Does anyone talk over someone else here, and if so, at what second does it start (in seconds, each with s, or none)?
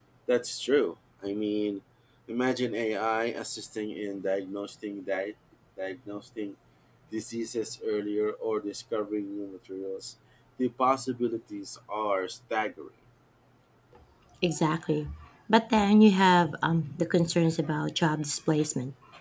none